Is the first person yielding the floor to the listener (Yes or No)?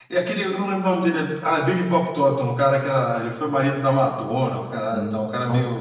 Yes